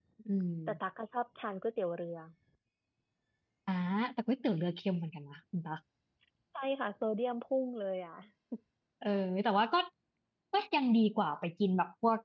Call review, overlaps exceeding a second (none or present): none